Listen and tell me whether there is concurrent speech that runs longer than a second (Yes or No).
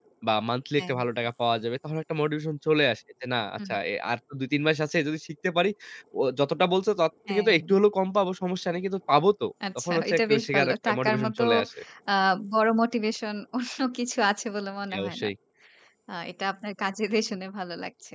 Yes